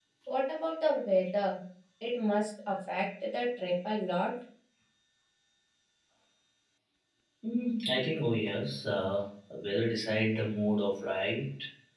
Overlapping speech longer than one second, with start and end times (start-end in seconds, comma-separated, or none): none